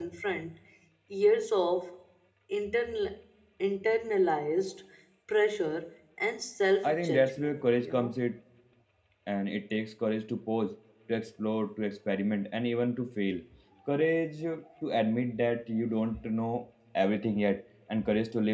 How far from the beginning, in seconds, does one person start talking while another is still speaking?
6.8 s

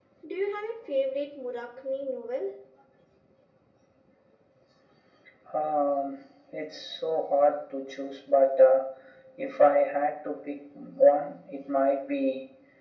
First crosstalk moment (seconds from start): none

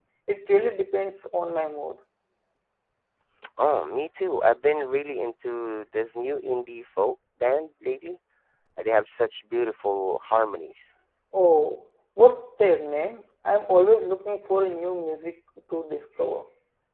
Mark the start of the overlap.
none

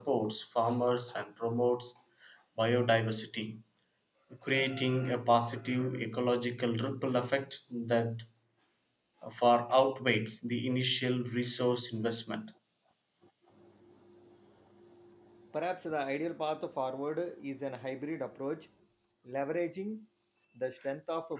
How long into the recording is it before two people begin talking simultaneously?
none

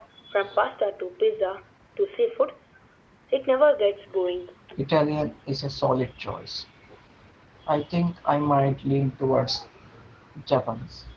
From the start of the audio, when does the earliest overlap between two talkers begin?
none

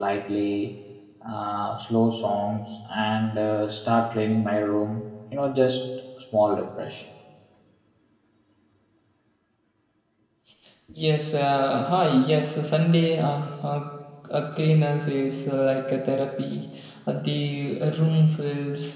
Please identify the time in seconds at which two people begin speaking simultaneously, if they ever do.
none

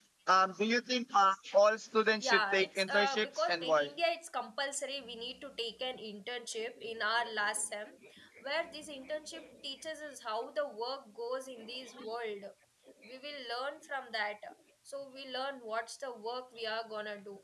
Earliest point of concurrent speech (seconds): 2.2 s

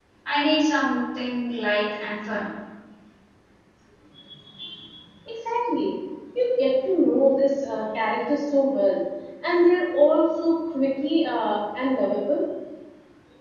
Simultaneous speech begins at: none

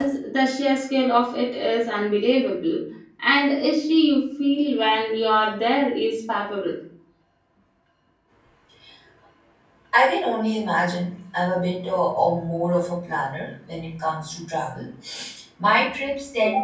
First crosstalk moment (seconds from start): none

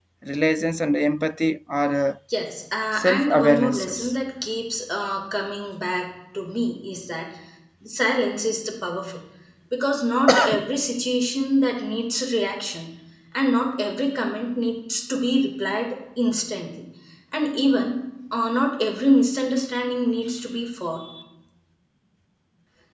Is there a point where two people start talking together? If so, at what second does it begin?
2.9 s

